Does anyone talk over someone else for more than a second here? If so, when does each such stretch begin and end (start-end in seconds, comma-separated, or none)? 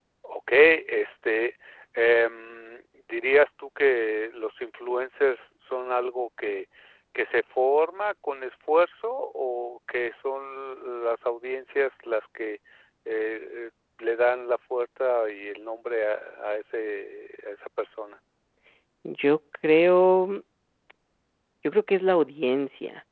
none